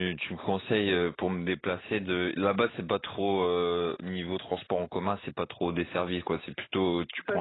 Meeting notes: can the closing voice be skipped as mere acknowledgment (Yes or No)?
No